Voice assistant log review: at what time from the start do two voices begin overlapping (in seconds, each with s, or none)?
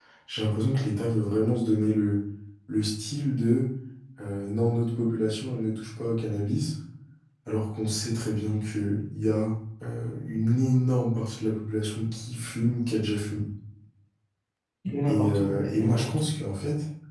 15.0 s